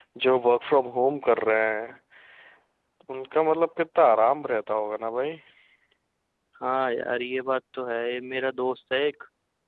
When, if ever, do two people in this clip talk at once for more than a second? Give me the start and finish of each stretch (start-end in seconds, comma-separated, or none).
none